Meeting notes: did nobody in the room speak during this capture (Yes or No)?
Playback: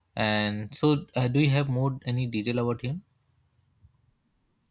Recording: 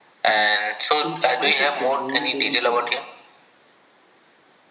No